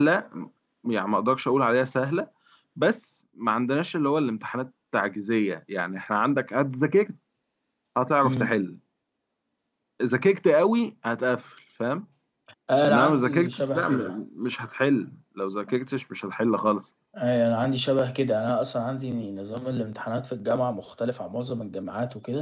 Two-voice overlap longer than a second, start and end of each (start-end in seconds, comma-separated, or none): 12.9-14.2